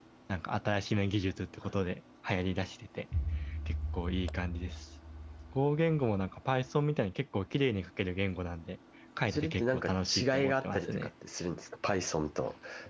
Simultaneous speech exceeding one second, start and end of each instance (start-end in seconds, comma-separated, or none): 9.3-11.1